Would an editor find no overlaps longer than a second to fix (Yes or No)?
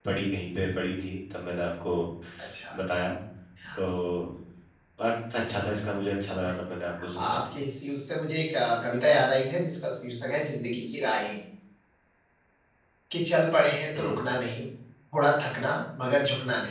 Yes